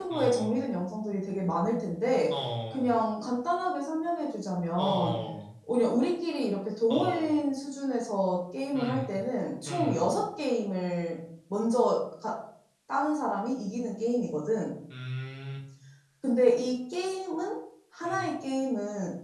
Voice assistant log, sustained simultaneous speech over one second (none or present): none